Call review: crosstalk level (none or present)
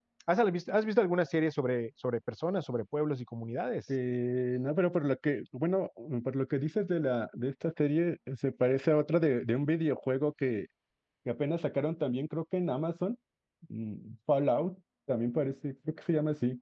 none